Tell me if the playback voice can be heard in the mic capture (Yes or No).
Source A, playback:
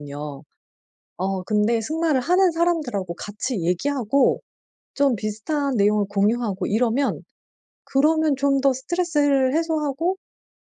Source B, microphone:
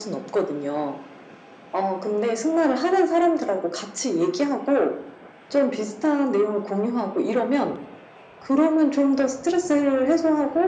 Yes